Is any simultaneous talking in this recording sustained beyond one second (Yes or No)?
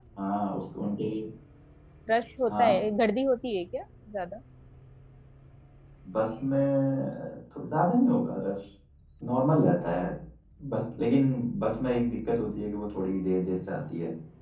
No